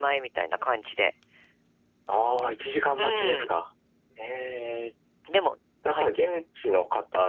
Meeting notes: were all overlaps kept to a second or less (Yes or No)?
Yes